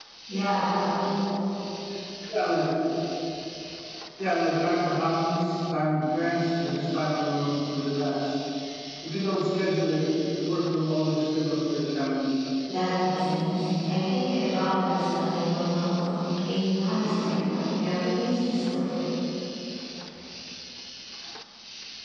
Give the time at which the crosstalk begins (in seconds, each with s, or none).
none